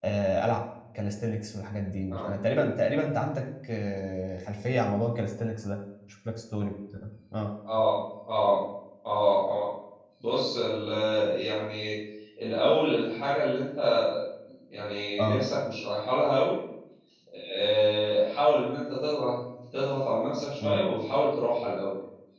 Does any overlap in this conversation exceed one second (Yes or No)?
No